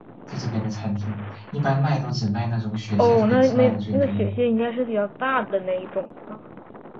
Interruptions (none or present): present